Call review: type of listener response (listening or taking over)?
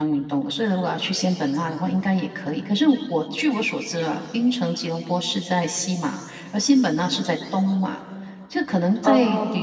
listening